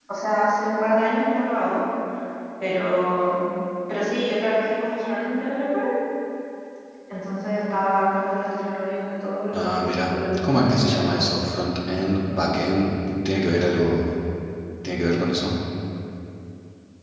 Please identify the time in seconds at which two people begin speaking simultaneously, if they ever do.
9.5 s

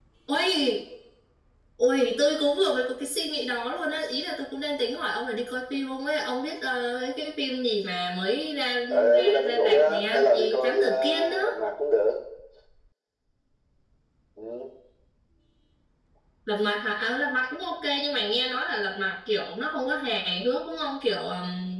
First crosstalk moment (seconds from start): 9.1 s

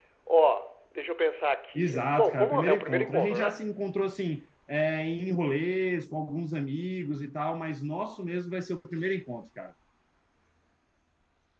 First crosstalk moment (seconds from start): 1.7 s

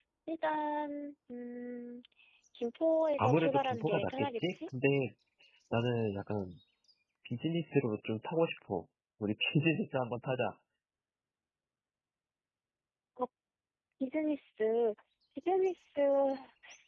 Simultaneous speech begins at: 3.2 s

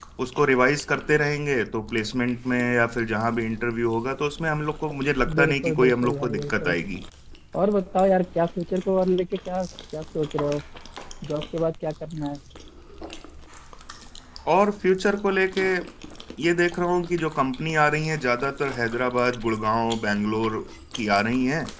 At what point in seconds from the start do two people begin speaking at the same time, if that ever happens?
5.3 s

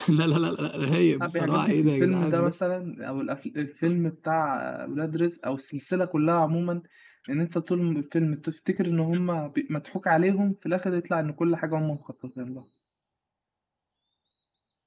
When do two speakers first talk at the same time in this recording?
1.2 s

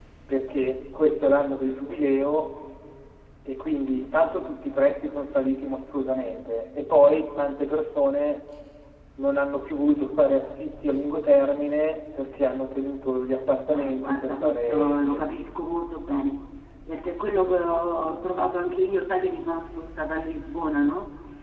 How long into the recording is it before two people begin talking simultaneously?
13.7 s

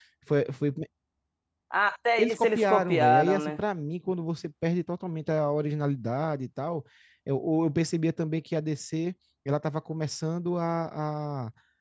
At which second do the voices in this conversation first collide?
2.2 s

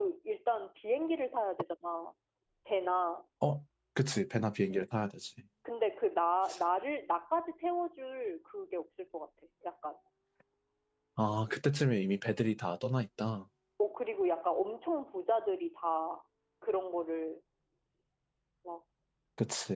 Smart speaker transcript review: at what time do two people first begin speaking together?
none

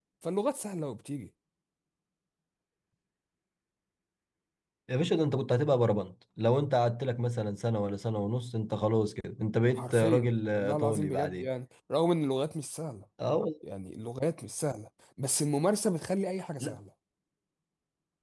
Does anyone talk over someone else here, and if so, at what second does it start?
9.7 s

